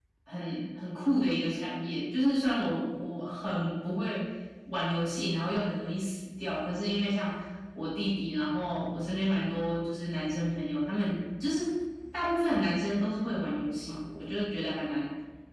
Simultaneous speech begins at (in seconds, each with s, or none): none